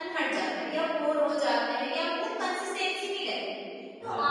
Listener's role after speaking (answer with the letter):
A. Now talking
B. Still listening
B